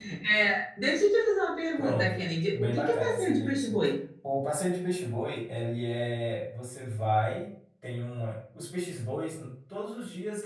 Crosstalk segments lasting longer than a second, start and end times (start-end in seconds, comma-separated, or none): 2.6-3.8